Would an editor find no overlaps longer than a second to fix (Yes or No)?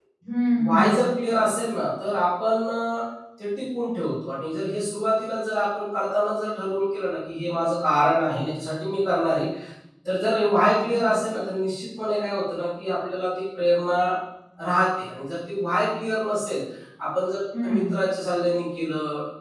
Yes